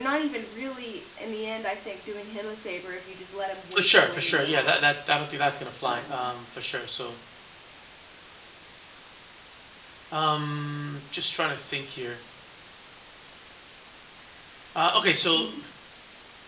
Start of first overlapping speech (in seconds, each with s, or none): 3.7 s